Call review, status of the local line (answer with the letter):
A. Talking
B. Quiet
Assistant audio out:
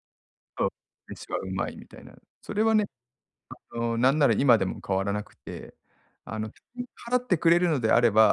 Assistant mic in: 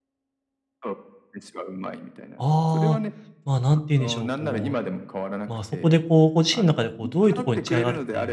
A